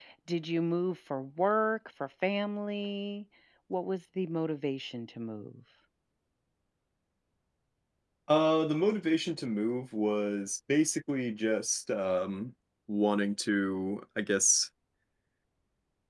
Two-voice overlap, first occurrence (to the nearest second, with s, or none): none